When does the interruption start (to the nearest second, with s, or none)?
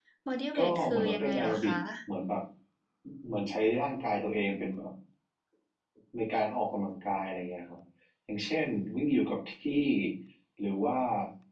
1 s